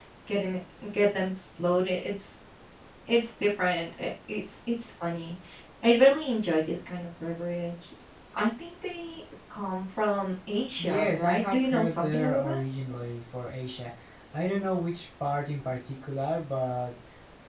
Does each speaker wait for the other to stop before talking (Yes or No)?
No